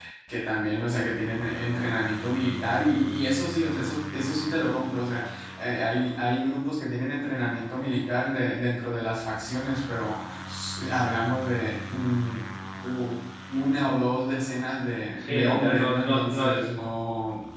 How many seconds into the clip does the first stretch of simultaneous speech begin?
15.2 s

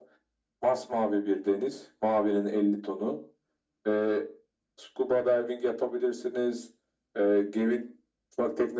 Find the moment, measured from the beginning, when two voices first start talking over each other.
none

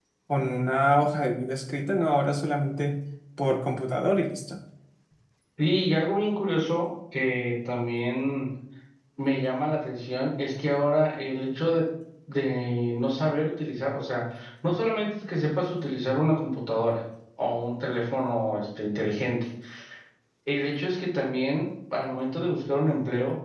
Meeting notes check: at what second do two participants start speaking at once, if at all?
none

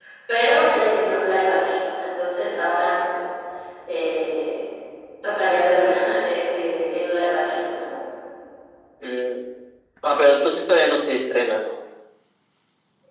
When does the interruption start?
none

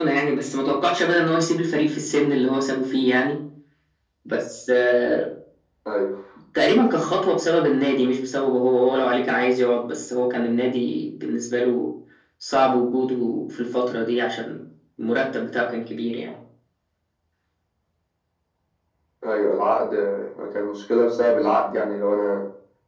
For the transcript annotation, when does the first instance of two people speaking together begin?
none

